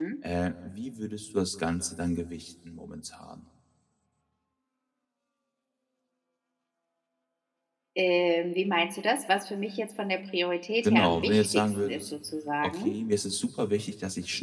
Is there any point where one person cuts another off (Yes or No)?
Yes